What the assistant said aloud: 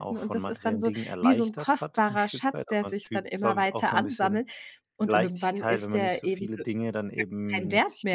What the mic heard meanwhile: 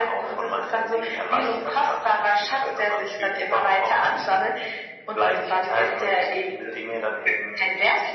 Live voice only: none

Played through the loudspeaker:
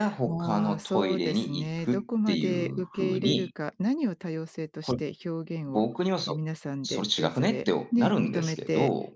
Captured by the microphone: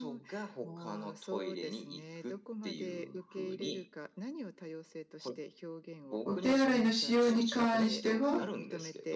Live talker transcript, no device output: お手洗いの使用に関しては、

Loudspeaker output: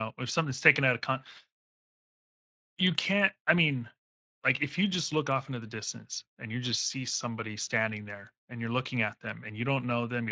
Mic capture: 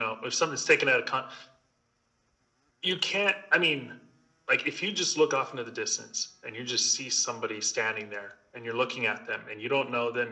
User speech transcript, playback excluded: none

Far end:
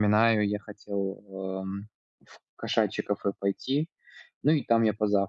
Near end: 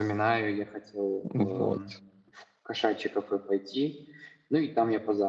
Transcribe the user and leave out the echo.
Вот.

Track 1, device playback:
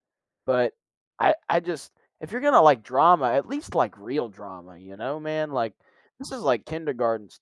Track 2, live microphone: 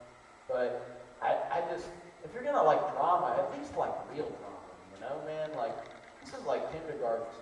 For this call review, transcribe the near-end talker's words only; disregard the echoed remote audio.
none

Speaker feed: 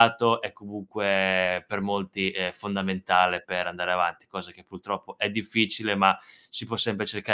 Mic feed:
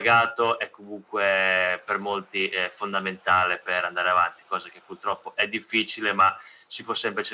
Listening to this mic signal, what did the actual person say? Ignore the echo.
none

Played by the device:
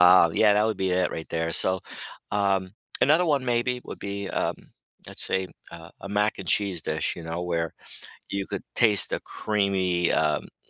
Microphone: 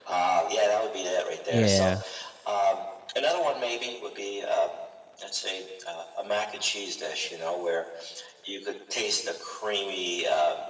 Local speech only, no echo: Yeah.

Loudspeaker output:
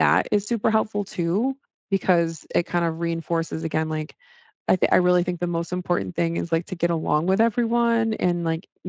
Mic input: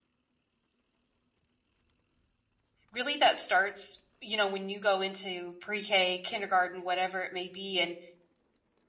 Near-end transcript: really that starts you know when you go into pre-k kindergarten whatever it may be and

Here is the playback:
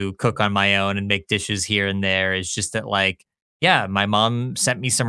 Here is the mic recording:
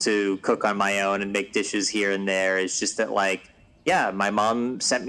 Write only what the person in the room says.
none

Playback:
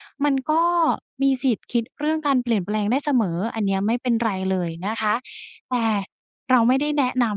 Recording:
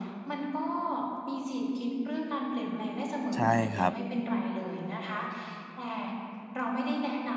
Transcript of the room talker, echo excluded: ใช่ครับ

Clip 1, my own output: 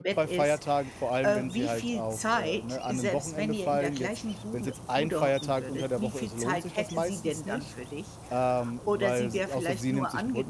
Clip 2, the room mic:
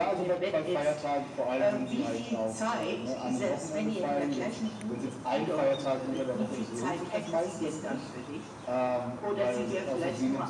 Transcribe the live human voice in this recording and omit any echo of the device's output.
none

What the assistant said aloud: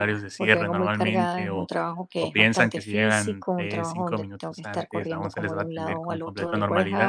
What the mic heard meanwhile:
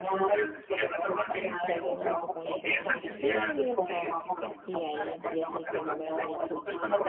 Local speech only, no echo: ya luego mi papá me pregunta, ¿y por qué no has ido hoy al trabajo? Y ahí empieza el fenómeno de la culpa,

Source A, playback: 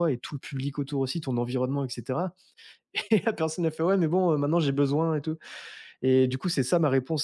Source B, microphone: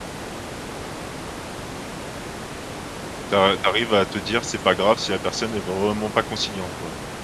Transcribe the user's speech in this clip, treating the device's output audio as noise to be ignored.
Tu a tu arrives à te dire: «C'est pas grave si la personne est vraiment pas conciliante», quoi?

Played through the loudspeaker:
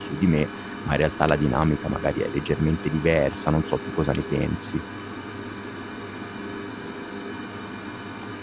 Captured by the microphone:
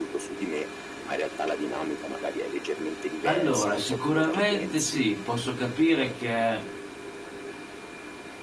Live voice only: Allora, sicuramente sì, posso capire che

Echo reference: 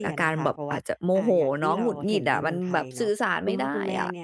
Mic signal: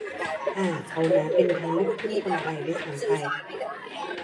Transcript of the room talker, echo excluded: อ่าเขานะเป็นทั้งลูกครึ่งคนไทยด้วยซ้ำไป

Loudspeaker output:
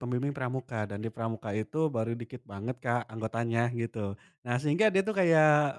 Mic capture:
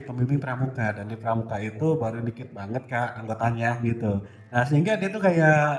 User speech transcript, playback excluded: none

